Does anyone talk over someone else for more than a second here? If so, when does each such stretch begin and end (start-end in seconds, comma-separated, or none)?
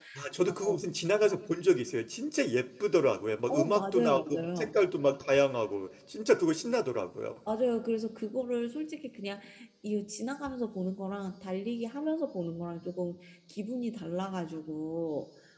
3.5-4.8